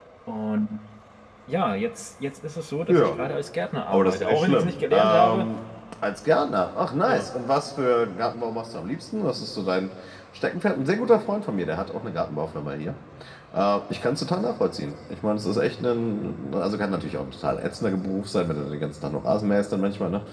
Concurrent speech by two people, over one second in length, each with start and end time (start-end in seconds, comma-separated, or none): 3.9-5.5